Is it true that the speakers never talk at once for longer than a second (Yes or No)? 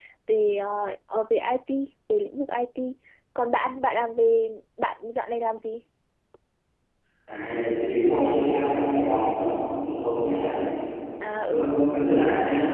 Yes